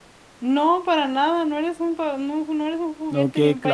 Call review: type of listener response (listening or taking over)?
taking over